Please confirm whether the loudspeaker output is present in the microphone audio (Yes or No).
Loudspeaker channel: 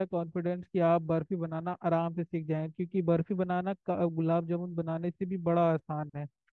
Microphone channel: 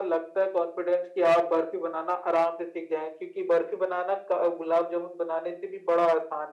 Yes